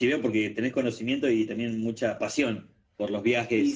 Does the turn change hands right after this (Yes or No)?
Yes